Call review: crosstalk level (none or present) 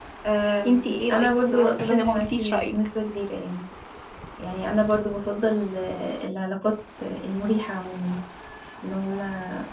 present